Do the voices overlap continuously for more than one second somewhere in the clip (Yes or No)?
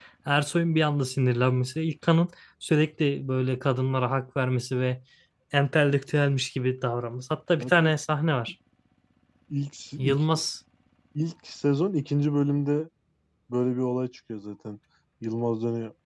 No